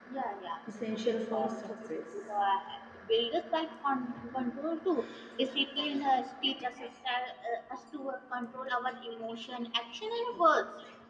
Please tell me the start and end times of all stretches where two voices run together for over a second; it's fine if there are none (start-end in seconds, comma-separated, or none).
0.9-2.4